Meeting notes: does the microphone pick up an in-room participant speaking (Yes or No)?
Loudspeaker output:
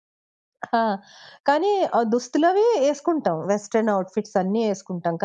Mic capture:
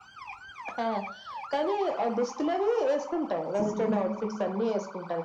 Yes